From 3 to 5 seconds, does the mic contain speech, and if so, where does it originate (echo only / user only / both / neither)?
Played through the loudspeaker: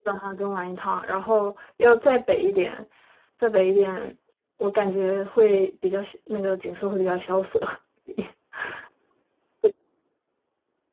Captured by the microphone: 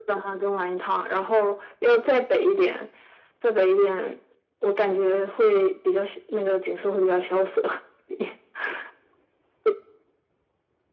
echo only